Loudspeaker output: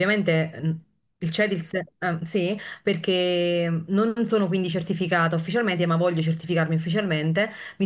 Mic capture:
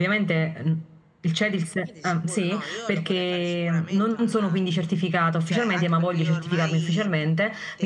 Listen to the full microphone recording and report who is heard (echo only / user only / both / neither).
both